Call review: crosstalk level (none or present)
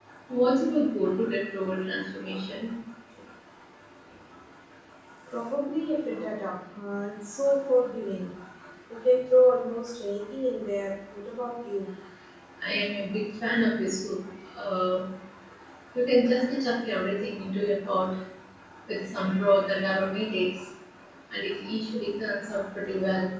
none